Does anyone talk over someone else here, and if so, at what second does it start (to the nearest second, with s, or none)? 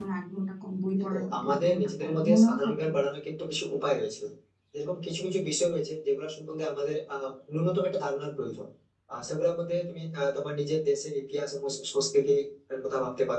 1 s